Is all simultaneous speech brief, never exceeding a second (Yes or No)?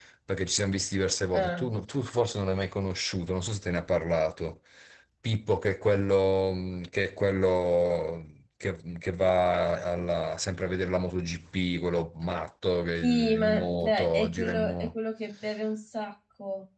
No